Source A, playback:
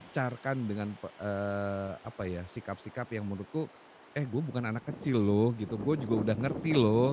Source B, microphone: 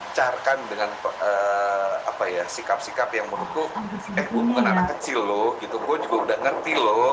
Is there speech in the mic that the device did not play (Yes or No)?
Yes